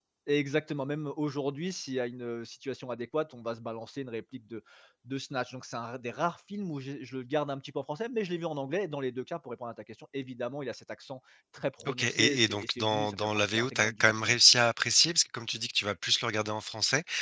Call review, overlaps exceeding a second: present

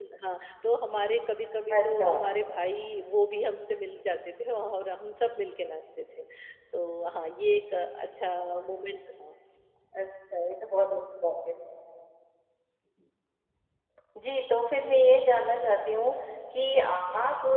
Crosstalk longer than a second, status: none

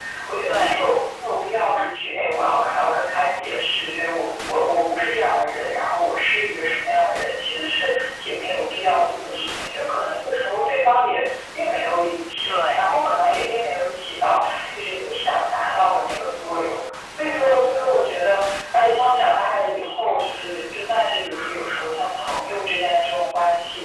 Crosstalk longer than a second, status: none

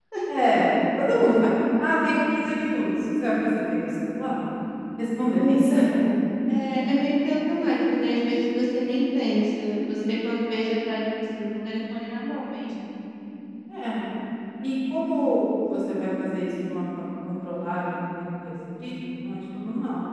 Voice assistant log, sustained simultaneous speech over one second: none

